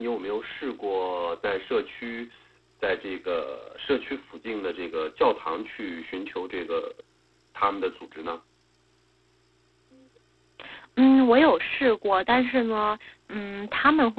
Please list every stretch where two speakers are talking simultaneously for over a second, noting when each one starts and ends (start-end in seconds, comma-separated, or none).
none